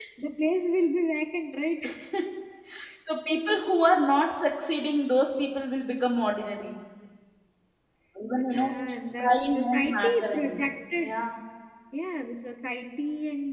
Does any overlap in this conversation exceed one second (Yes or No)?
Yes